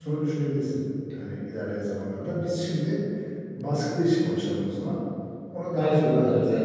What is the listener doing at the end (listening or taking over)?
taking over